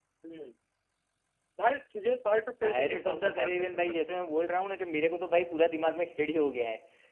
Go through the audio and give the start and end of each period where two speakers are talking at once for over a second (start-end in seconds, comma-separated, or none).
2.6-3.9